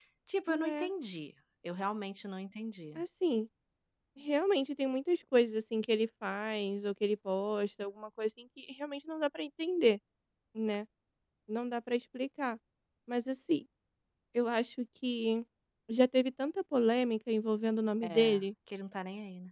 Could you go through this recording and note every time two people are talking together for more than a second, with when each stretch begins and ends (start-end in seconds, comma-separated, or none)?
none